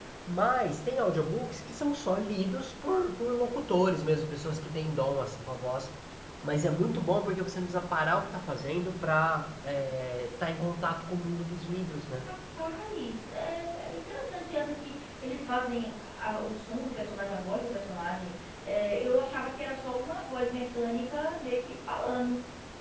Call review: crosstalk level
none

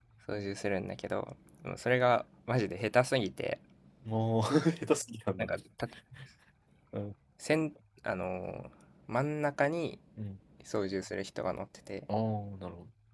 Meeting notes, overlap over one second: none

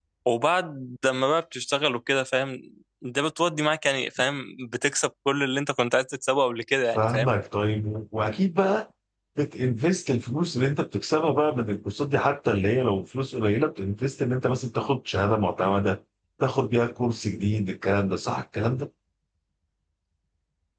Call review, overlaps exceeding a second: none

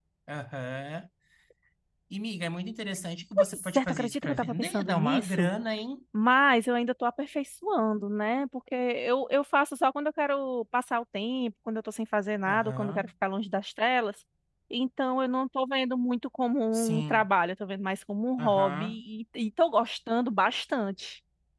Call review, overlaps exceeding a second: present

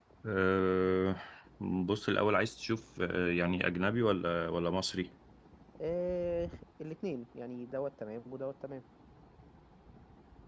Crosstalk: none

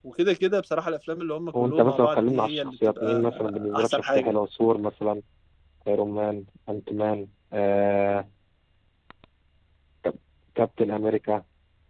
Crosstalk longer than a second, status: present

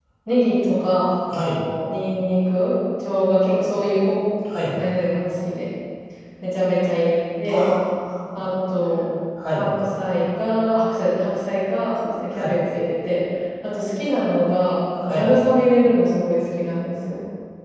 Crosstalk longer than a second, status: none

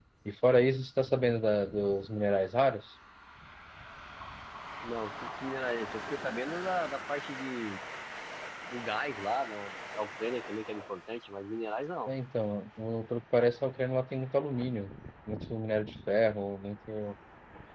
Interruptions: none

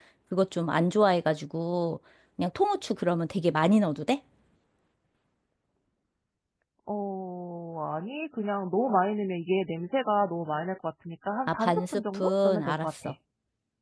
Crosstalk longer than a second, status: present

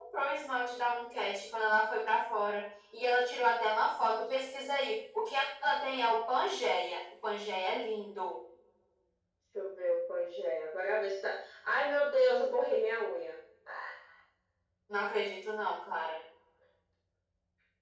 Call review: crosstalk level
none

